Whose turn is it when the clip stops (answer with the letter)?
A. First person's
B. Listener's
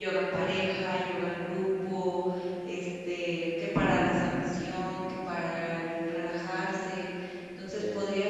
A